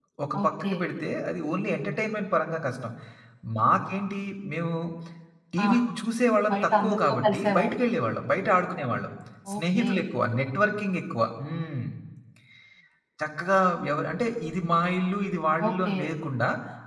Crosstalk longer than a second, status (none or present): present